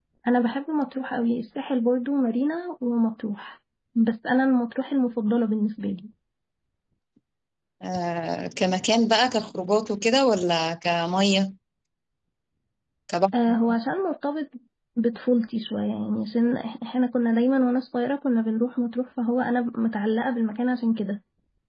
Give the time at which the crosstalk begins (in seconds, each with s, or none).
none